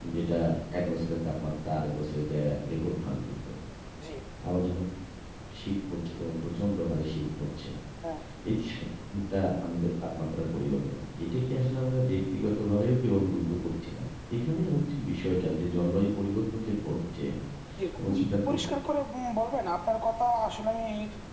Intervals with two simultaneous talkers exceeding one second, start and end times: none

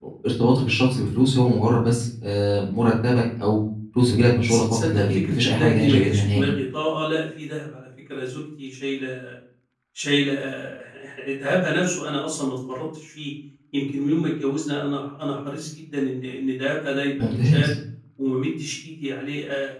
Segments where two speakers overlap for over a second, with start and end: 4.4-6.5

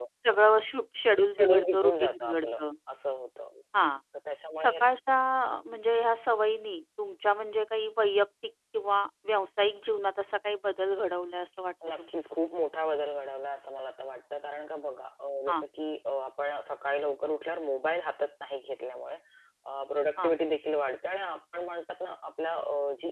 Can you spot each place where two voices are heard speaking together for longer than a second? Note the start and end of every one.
1.3-2.6

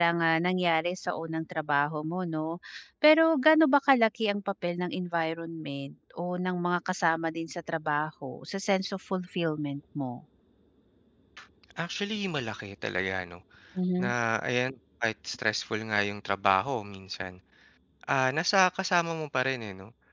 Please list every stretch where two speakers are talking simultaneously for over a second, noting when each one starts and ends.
none

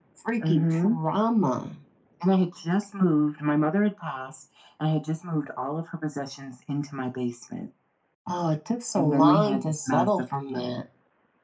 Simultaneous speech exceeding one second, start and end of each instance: 8.9-10.7

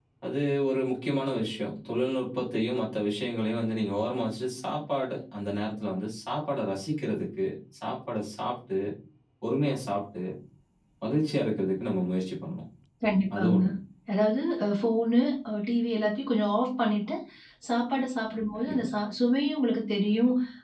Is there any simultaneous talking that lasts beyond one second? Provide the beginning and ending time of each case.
none

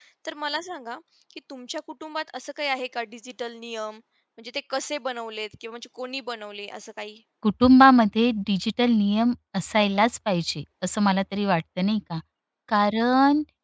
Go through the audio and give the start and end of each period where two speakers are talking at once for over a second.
none

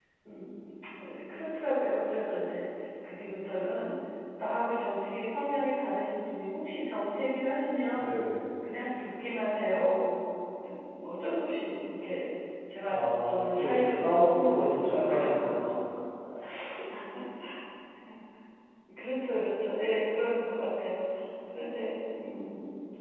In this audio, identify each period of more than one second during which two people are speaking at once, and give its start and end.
12.9-15.3

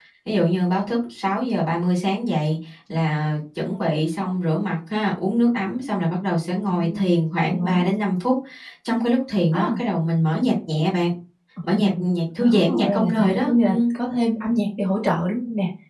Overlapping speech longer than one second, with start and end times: 12.4-13.8

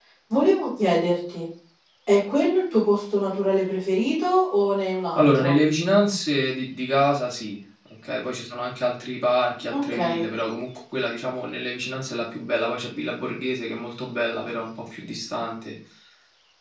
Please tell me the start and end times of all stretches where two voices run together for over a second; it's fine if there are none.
none

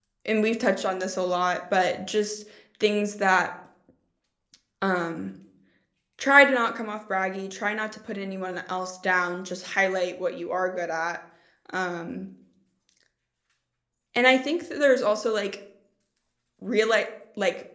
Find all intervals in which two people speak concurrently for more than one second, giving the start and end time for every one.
none

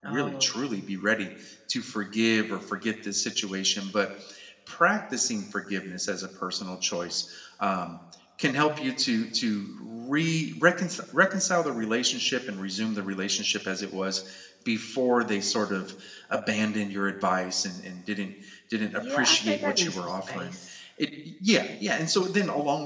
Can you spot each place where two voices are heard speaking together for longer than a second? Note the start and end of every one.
18.8-20.6

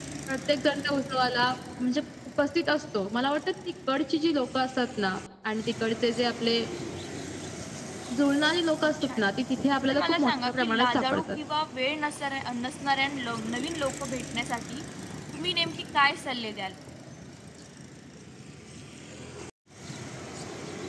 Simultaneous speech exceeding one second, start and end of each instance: 9.9-11.4

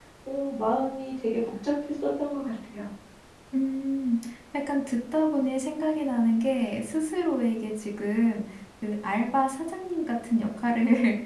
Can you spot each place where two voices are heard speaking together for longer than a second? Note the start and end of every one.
none

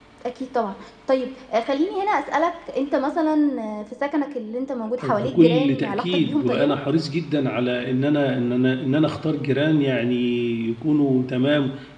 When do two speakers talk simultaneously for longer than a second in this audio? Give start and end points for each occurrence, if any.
5.0-6.8

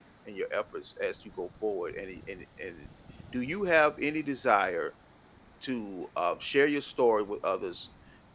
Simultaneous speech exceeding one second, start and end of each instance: none

